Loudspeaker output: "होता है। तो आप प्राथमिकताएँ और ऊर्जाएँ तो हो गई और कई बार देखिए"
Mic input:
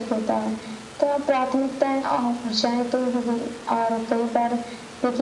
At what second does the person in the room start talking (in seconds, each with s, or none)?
none